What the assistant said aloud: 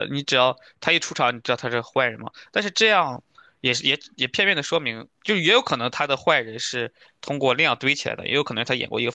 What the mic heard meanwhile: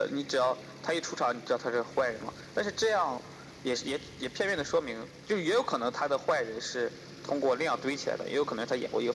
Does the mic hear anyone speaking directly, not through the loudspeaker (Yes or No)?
No